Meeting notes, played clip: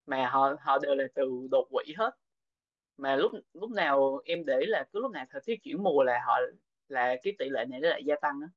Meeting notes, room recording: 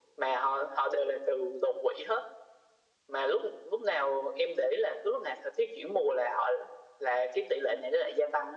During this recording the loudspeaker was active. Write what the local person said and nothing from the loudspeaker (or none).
none